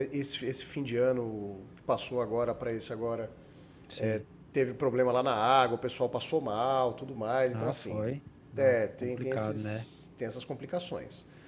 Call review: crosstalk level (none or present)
present